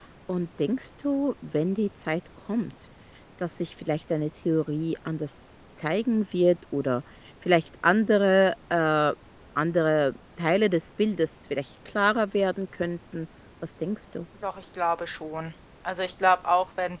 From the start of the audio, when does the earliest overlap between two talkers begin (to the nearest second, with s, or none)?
none